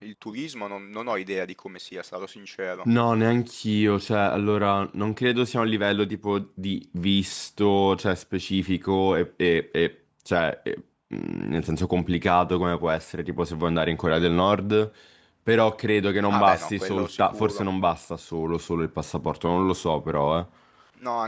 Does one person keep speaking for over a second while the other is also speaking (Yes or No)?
Yes